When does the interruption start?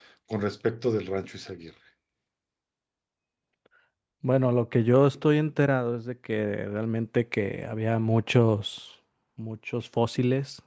none

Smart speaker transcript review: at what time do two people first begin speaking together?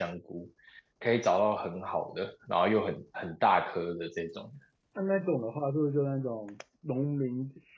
none

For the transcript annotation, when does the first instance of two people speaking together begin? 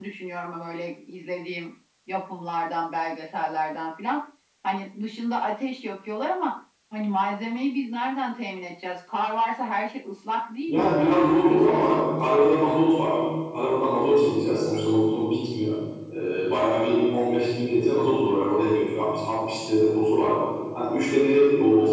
11 s

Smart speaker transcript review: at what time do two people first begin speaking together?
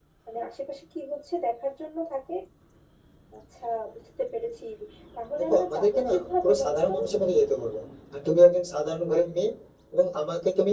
5 s

